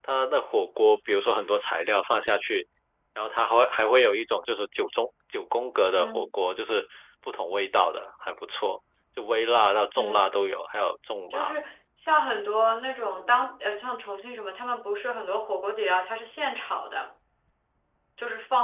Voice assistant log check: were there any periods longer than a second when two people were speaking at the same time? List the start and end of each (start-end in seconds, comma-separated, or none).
none